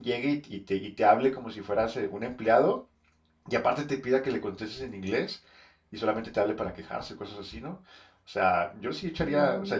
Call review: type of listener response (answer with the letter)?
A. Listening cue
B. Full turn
A